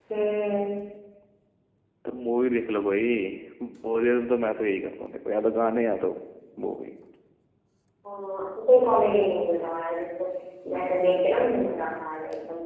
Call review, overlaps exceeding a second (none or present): none